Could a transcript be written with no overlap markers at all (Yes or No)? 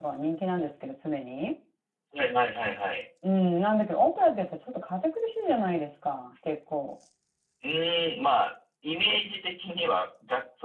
Yes